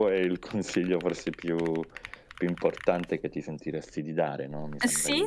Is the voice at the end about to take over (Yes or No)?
Yes